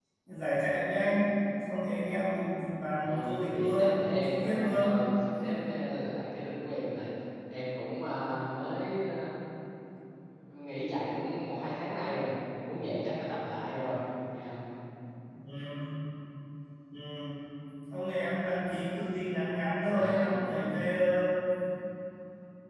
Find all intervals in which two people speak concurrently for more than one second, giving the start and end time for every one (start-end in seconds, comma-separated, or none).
3.0-5.0